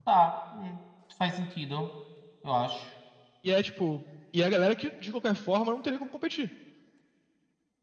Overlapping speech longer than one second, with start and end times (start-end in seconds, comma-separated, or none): none